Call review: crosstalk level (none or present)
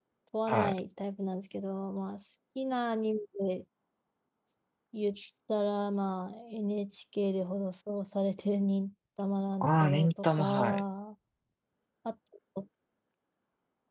present